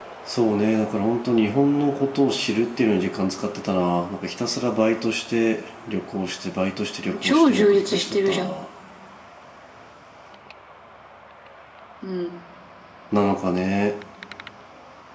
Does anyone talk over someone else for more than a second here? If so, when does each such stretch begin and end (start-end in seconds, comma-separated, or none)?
7.0-8.4